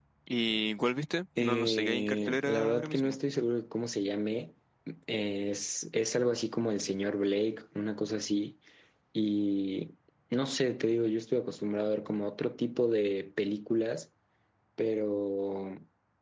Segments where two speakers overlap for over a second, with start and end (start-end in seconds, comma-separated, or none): 1.4-3.2